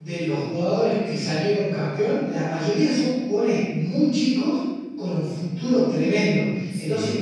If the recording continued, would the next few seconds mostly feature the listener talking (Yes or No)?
No